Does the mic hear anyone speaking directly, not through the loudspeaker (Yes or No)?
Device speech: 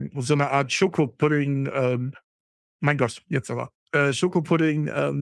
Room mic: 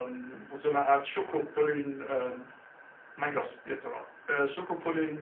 No